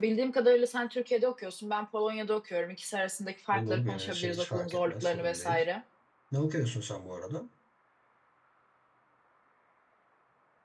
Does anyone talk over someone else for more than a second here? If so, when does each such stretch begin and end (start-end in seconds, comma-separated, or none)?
3.5-5.6